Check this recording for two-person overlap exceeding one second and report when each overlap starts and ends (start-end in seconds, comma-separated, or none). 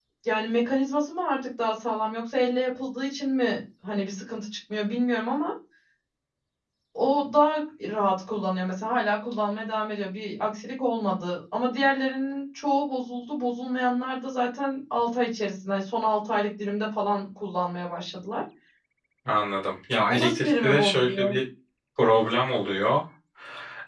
20.1-21.4